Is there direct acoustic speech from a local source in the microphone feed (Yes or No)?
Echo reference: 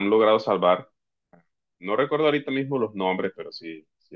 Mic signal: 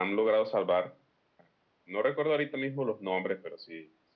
No